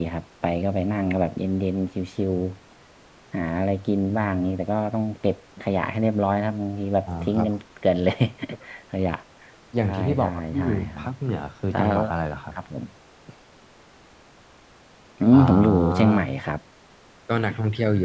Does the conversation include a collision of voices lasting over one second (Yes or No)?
Yes